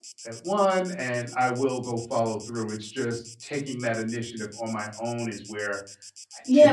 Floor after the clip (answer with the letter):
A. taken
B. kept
A